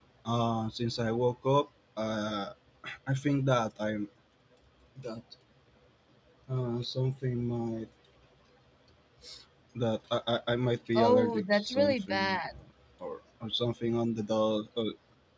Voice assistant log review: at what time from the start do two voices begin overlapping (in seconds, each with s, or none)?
10.9 s